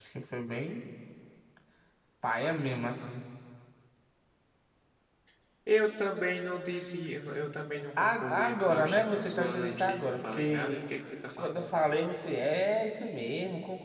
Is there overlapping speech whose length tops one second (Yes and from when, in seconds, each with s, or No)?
Yes, from 8.0 s